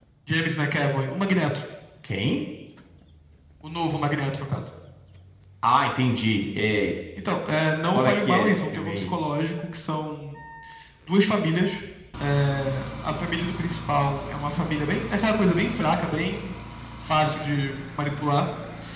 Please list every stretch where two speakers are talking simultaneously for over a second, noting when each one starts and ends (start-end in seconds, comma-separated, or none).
7.9-9.2